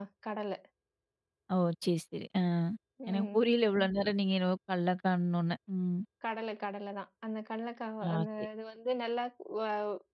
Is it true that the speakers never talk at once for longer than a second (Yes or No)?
Yes